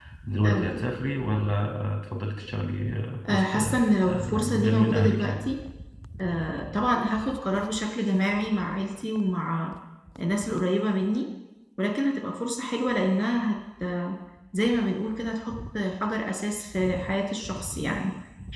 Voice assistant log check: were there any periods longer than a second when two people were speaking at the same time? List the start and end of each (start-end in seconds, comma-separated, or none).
3.3-5.5